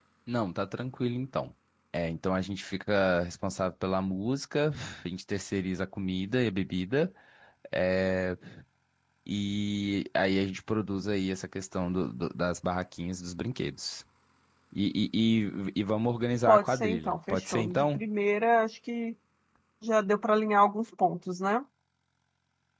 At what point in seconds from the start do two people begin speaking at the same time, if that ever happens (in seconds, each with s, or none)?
16.5 s